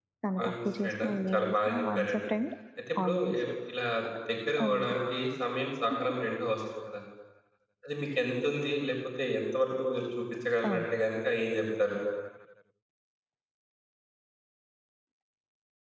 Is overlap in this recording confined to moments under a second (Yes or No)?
No